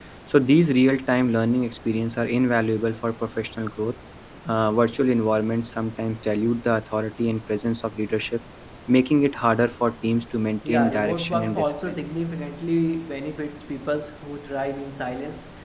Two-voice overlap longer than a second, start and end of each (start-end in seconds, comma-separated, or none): 10.7-12.0